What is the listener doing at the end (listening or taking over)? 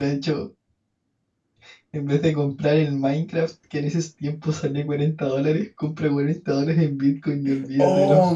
taking over